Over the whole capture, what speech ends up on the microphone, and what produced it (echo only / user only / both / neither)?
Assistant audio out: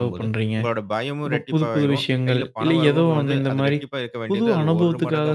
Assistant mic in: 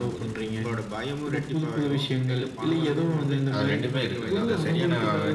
both